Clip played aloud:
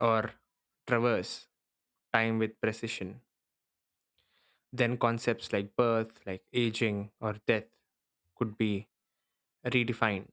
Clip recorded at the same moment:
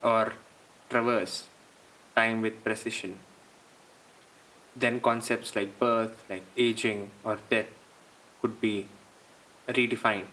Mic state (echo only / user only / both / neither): echo only